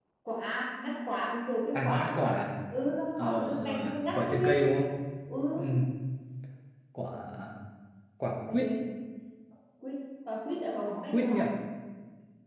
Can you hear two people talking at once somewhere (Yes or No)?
Yes